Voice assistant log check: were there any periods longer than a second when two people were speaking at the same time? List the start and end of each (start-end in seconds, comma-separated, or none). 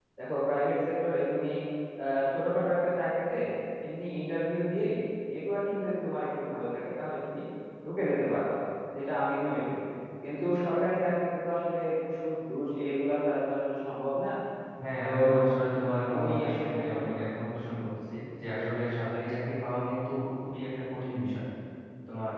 15.9-17.2